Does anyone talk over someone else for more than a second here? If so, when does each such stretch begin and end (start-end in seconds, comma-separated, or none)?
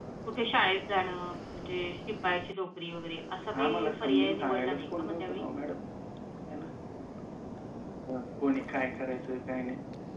3.6-5.4